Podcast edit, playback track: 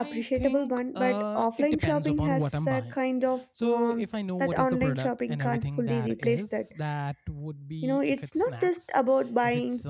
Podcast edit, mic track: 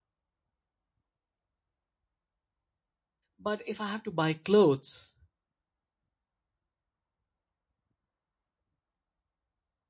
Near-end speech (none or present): present